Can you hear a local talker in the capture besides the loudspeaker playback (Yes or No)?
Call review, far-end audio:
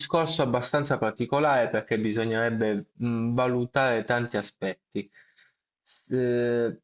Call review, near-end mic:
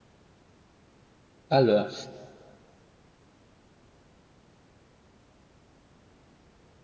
Yes